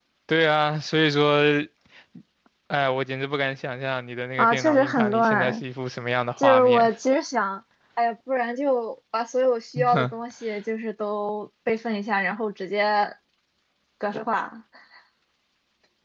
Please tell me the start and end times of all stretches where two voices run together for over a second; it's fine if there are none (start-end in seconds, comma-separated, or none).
4.4-5.6